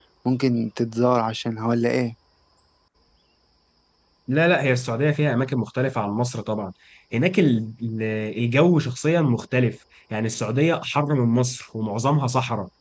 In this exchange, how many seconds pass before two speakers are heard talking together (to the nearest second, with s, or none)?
none